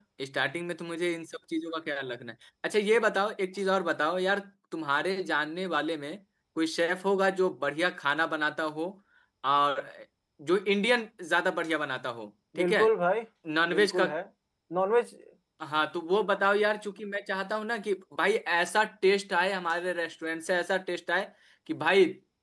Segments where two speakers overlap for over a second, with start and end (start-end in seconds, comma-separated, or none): none